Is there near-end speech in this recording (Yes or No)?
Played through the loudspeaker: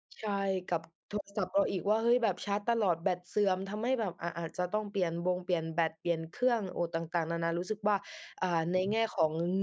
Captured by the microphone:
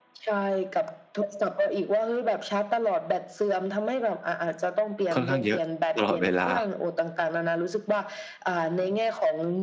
Yes